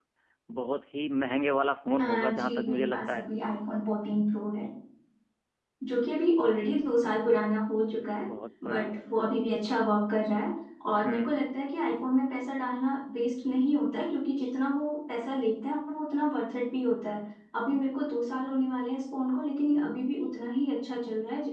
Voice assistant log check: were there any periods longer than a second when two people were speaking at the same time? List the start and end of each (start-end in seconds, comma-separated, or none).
2.0-3.3